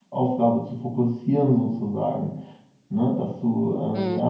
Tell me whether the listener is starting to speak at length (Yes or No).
No